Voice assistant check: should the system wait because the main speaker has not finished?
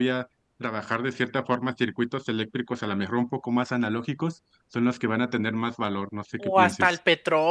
No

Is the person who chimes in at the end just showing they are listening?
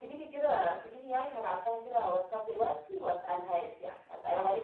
Yes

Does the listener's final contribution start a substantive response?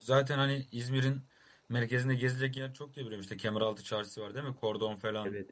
Yes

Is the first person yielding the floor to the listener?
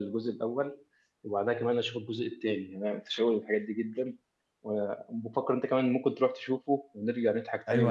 Yes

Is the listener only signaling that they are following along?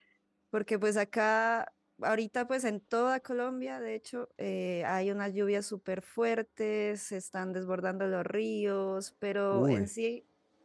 Yes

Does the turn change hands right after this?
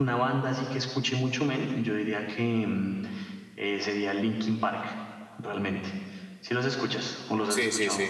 Yes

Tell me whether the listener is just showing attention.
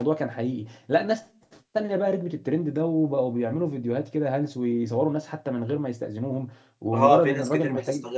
No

